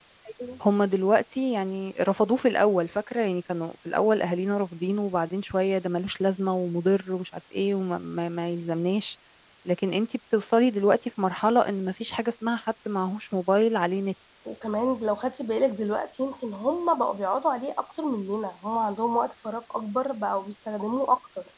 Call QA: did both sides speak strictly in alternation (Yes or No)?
Yes